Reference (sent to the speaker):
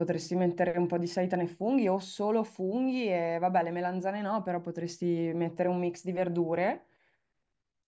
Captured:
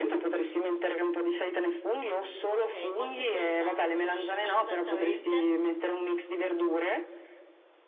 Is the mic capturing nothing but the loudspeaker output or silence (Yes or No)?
No